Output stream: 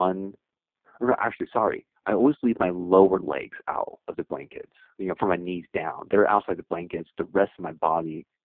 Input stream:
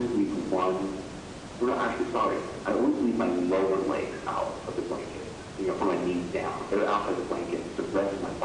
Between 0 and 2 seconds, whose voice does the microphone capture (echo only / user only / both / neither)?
echo only